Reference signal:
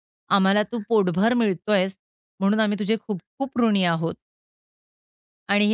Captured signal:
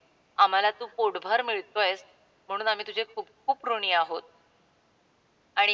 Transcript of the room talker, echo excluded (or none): none